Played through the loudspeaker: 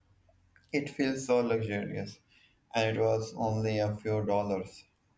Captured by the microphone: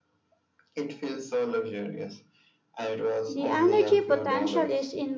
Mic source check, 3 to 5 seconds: both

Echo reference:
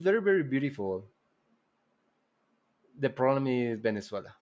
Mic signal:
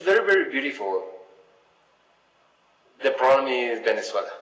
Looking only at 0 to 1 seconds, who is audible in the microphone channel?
echo only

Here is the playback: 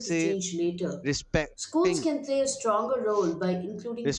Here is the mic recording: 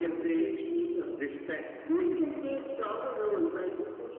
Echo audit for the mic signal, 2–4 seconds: echo only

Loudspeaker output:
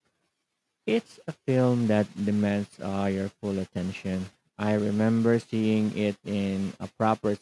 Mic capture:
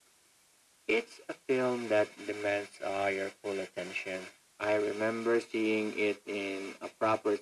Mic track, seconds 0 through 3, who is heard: echo only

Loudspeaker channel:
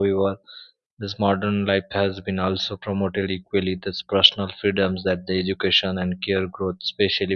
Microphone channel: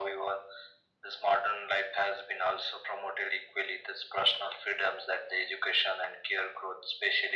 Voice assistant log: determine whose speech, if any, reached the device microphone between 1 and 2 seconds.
echo only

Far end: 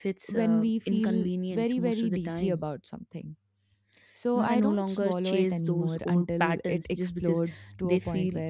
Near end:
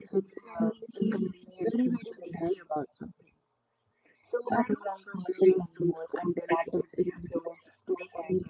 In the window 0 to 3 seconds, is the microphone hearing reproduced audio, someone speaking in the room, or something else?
echo only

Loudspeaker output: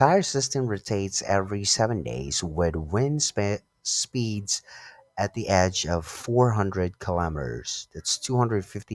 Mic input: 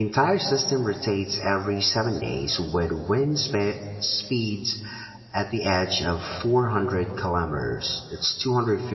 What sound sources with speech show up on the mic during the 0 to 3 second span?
echo only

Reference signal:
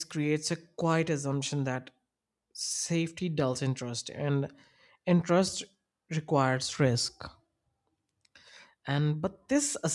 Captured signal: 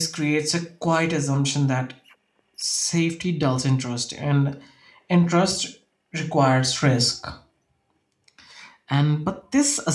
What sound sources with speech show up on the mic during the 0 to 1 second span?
echo only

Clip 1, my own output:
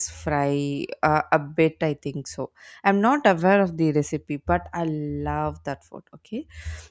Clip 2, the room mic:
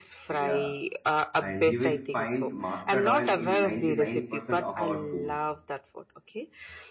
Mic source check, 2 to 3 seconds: both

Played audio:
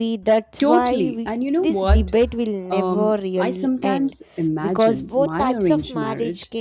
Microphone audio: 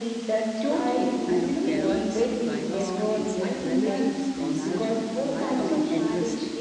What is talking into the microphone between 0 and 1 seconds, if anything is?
echo only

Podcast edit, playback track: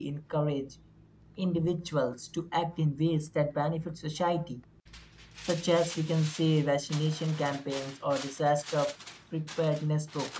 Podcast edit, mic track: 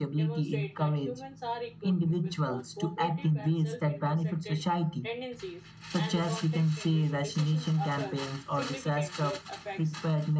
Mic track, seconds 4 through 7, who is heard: both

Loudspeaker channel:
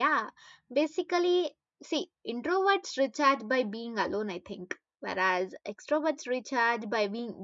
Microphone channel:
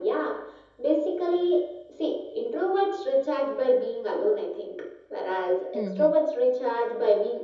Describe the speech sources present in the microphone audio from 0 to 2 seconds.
echo only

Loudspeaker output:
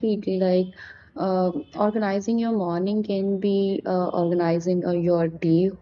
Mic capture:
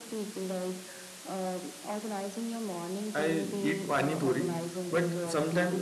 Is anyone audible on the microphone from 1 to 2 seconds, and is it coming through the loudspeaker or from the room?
echo only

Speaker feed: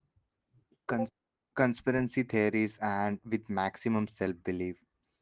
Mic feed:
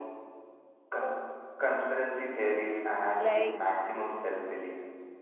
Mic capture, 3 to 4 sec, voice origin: both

